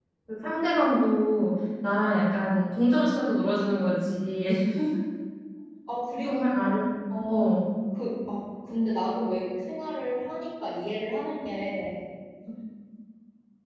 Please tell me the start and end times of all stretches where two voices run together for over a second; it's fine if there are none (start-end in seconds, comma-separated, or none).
none